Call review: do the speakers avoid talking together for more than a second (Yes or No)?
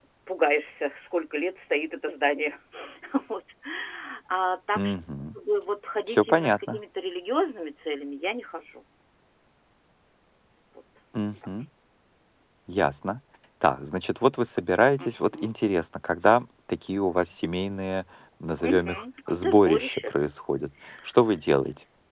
No